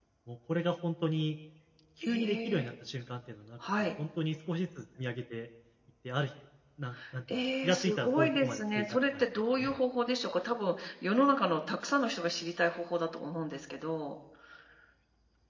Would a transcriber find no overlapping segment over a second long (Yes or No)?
No